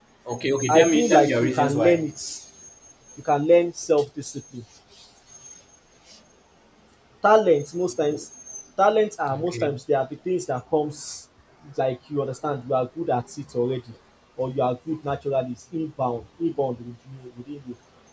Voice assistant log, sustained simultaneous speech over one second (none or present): present